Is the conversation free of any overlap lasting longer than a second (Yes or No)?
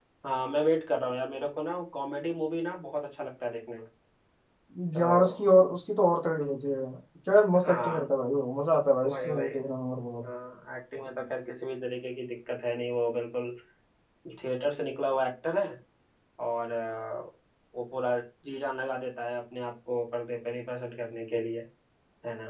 Yes